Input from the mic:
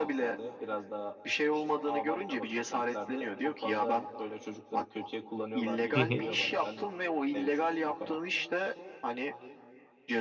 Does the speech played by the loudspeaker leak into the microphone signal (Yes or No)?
Yes